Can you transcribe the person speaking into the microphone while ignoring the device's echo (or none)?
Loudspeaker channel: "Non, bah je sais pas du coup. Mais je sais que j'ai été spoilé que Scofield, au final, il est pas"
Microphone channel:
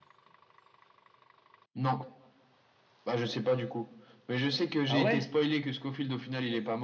Ah ouais?